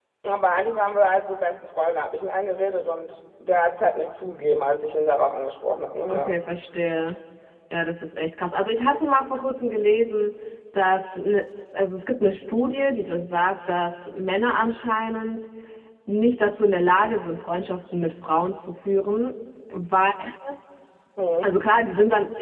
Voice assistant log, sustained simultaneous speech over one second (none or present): none